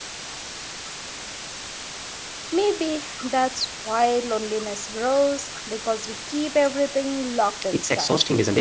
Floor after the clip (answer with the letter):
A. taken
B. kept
A